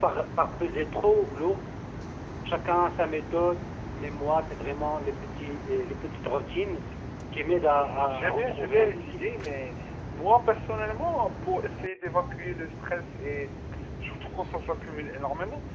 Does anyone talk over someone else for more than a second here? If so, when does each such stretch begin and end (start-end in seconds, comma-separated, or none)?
7.5-9.3